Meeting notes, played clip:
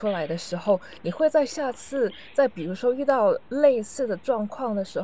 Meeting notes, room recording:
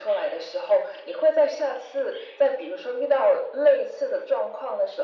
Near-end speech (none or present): none